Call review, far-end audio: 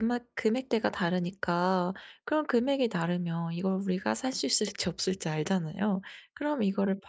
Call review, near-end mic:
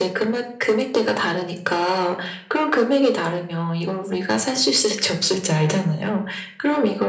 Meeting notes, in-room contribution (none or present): none